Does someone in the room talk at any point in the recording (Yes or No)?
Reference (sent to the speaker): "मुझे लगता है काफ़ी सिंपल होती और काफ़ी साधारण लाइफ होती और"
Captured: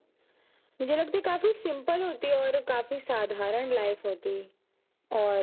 No